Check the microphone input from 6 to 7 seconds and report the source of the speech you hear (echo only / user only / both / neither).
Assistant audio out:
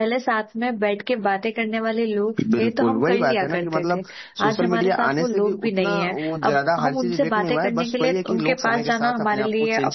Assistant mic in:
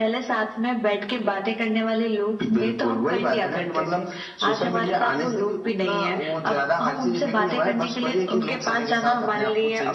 echo only